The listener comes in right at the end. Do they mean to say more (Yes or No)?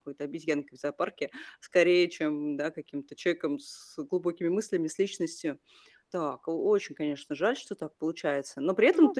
No